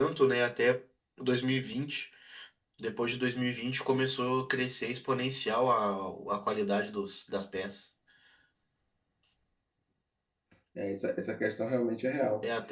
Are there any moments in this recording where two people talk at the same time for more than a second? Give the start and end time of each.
none

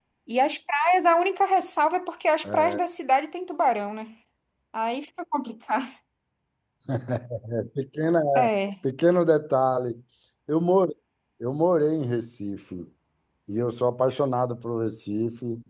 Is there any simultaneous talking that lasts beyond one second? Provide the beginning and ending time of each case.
none

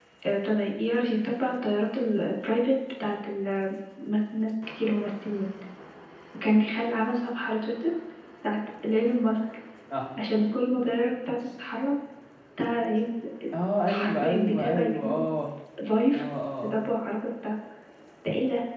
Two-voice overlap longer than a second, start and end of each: 13.9-15.2

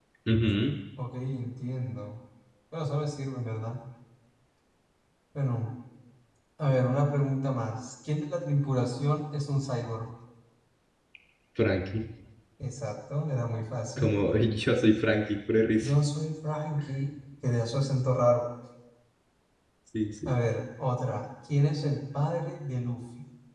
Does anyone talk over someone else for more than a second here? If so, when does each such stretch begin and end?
none

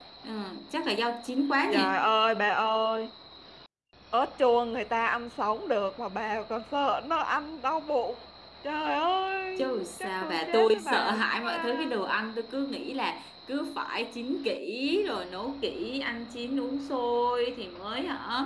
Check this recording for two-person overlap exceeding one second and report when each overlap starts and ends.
9.6-11.9

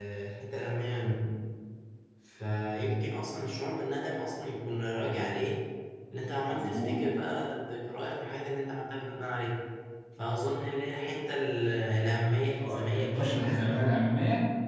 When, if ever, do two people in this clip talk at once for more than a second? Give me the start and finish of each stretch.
12.6-13.9

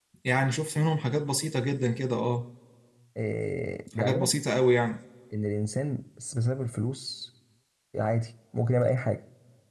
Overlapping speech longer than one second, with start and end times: none

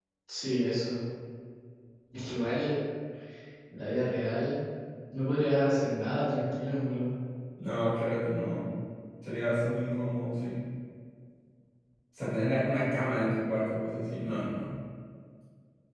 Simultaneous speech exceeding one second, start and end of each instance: none

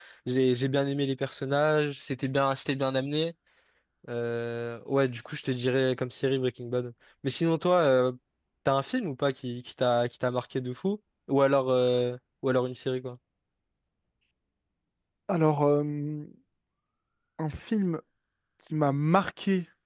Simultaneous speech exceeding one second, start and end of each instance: none

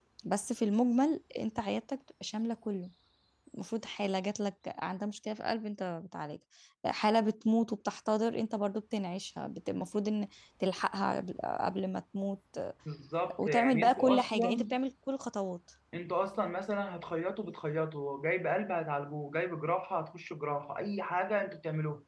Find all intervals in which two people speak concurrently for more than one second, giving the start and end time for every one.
13.4-14.7

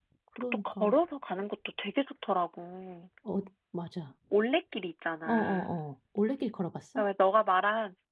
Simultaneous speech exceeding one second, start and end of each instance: none

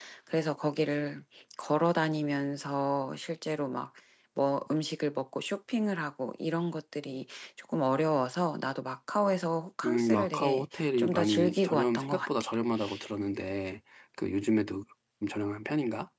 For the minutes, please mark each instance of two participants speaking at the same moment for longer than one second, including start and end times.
9.8-12.5

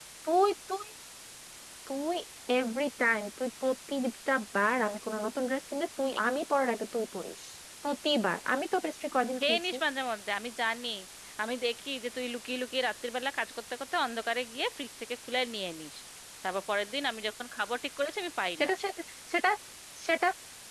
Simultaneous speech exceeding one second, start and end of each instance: none

